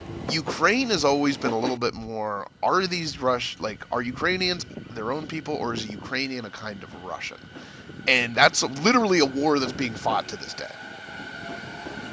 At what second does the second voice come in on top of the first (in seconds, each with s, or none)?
none